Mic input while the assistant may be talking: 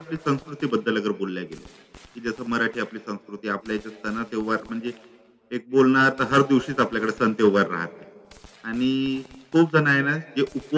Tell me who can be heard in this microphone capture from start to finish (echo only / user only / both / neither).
echo only